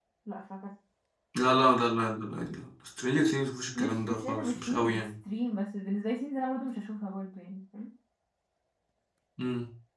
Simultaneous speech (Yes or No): Yes